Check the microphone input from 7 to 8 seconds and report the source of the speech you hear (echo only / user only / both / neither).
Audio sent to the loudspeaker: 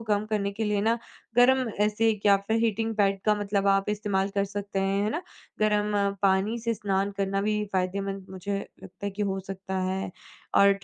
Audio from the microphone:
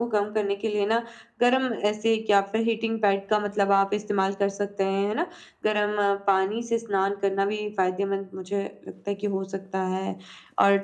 echo only